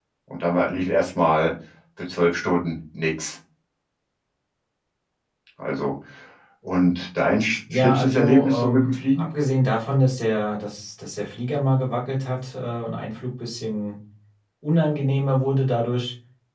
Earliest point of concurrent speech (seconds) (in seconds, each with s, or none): 7.7 s